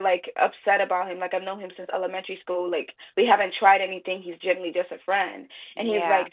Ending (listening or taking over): listening